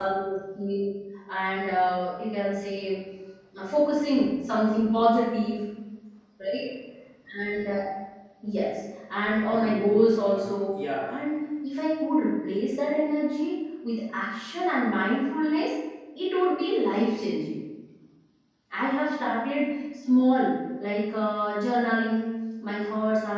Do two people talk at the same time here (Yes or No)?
Yes